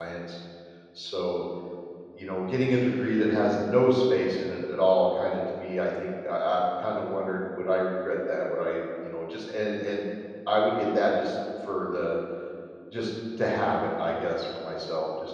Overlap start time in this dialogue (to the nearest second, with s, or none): none